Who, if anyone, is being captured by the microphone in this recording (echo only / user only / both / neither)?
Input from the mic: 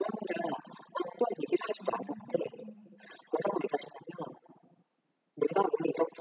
both